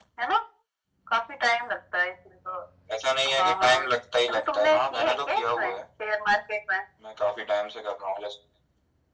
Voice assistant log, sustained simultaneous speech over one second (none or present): present